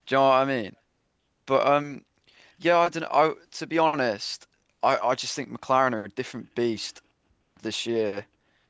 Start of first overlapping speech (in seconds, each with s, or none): none